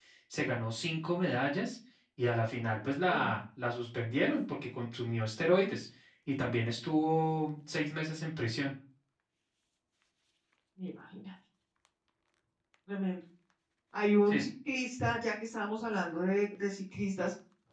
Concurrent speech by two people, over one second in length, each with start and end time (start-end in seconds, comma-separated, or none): none